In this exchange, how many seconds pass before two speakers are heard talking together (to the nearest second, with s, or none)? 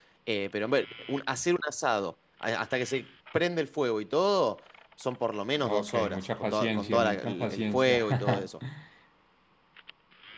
6 s